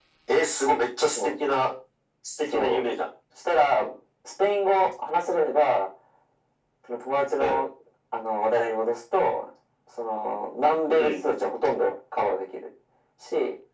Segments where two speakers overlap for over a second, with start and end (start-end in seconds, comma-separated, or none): none